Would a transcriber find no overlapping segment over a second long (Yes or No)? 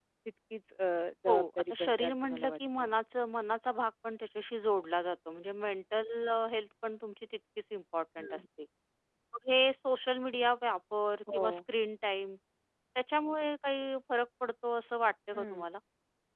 No